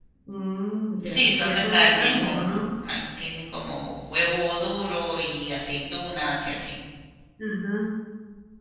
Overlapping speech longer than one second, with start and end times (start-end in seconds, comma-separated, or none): 1.0-2.5